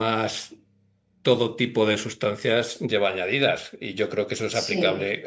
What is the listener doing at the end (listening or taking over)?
listening